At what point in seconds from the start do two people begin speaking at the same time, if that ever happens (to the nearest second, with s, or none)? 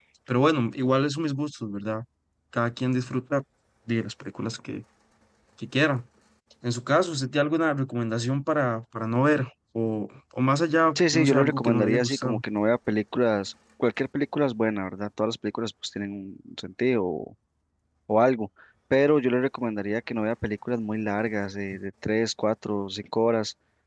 11 s